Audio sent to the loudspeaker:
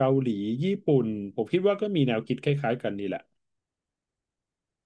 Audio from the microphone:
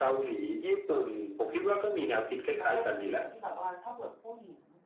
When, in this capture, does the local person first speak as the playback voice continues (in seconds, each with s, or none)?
2.6 s